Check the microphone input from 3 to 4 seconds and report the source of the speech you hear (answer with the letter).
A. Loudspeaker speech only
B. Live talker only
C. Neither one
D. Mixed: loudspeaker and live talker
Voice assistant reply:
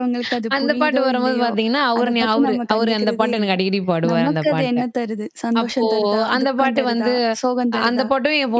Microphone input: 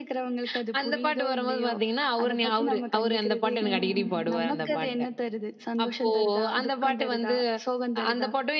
D